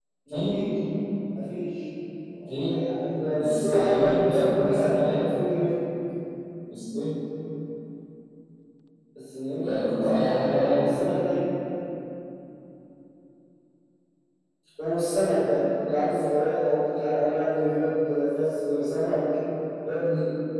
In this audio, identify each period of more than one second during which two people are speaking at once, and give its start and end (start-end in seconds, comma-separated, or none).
3.4-5.3, 9.6-10.9